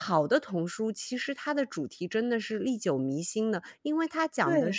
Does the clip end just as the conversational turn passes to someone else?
No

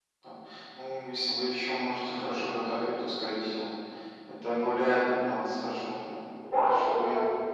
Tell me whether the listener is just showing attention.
No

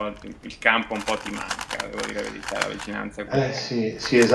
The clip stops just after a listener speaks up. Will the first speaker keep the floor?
No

